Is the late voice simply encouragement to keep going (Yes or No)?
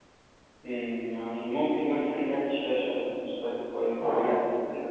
No